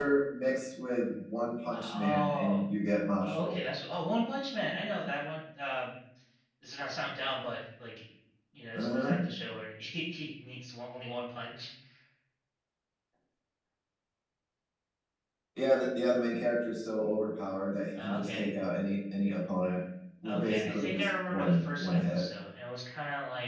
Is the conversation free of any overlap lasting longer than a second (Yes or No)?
No